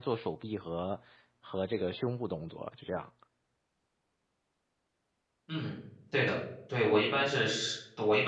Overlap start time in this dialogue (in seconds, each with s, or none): none